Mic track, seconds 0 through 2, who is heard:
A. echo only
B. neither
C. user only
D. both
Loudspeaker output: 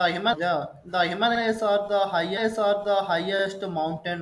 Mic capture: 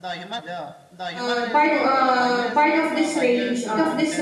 D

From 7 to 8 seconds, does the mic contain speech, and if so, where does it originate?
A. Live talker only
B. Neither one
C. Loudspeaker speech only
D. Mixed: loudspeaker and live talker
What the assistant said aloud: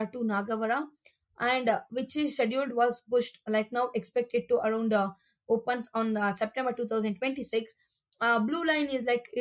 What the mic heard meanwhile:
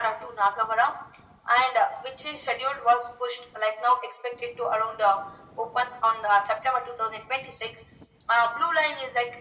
C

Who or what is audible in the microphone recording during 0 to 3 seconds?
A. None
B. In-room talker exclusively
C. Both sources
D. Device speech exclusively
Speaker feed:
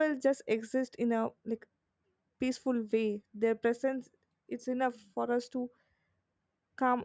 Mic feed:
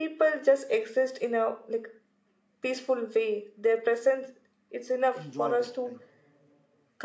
D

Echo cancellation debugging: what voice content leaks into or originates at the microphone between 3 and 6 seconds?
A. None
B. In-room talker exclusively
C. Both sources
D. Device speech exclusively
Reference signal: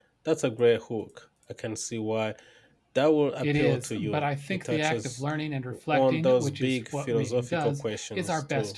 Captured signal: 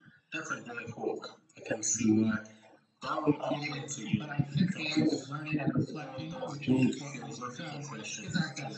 D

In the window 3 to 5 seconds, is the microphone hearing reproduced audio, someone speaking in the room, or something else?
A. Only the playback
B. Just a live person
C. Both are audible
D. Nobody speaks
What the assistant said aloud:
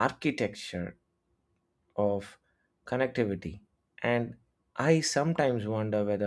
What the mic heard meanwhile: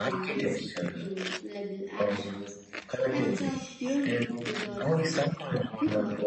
C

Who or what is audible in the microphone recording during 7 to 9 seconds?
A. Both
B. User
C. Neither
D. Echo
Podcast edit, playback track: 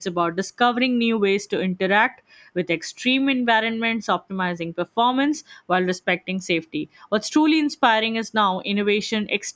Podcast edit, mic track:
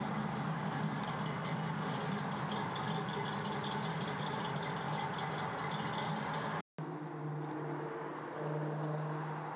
C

